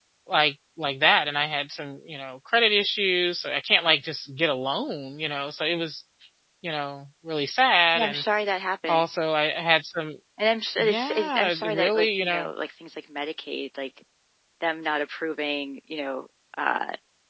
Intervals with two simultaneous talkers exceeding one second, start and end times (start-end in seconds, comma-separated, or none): 10.8-12.5